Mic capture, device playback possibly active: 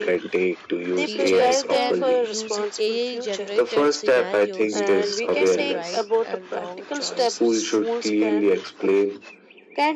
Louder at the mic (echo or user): echo